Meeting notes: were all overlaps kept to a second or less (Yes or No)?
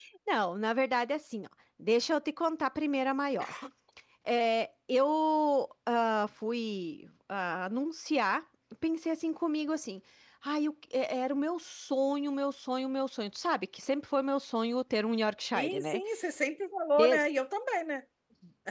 Yes